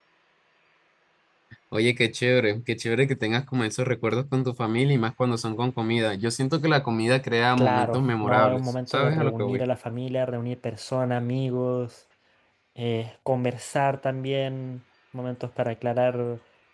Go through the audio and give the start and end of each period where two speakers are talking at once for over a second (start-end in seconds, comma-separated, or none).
7.6-9.6